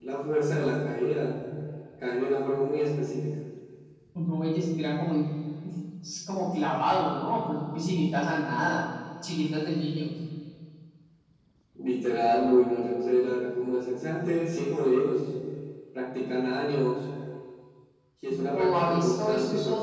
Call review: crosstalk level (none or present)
present